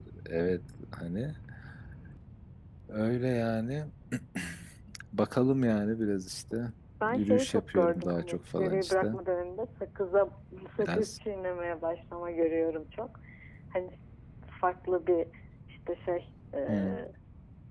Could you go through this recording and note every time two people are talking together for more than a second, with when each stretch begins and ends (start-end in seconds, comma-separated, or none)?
7.0-9.1